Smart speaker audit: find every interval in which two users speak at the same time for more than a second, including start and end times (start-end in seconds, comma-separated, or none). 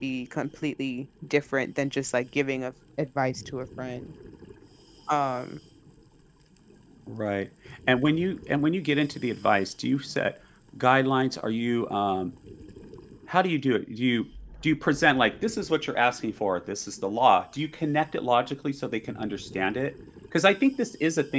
none